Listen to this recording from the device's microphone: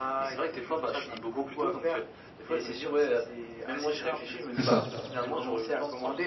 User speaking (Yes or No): Yes